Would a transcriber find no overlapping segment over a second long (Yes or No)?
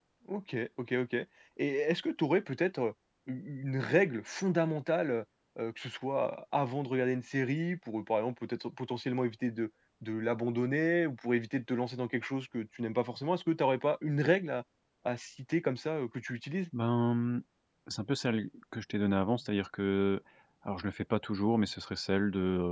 Yes